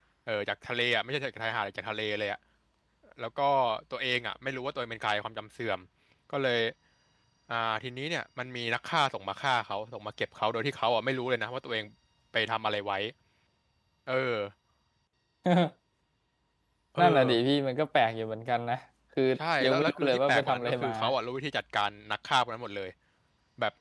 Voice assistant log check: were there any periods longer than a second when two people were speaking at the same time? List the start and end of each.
19.6-20.9

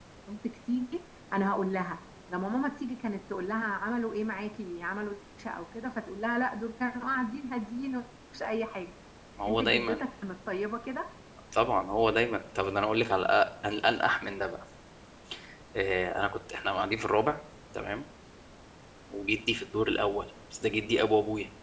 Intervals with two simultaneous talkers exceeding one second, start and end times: none

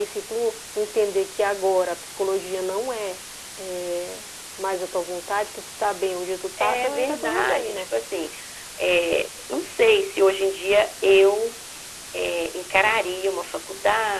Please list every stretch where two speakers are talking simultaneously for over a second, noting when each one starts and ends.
6.6-7.9

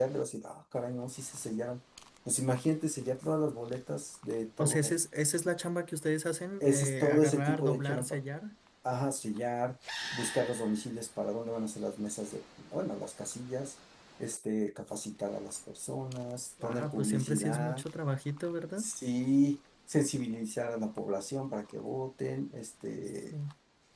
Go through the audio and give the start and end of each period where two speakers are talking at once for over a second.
6.6-8.2, 16.6-17.8

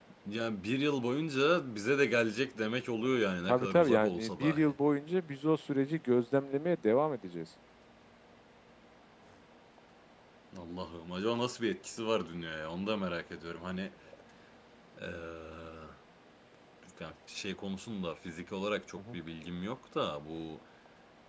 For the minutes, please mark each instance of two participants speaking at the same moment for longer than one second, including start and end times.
3.5-4.8

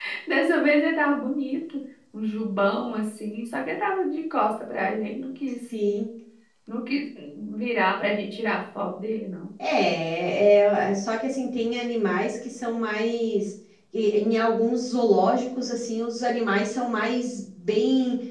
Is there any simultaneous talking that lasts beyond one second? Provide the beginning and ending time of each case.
none

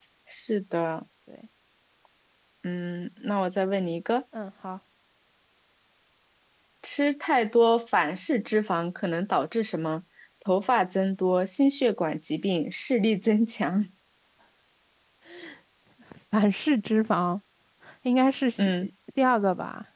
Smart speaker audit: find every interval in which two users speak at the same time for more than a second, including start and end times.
none

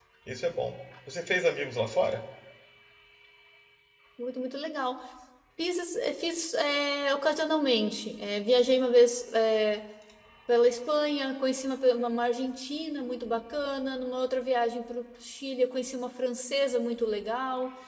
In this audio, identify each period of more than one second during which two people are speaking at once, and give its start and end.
none

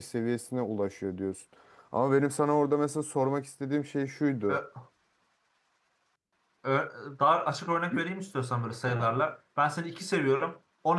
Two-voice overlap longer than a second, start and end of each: none

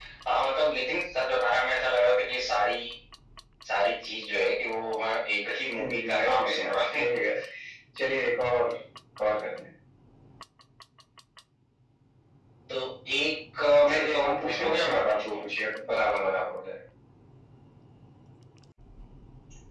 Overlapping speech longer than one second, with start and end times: 5.8-7.2, 13.9-15.4

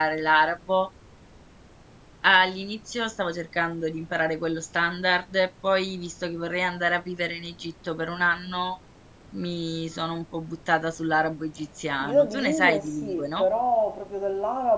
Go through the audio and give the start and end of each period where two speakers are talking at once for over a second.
12.0-13.5

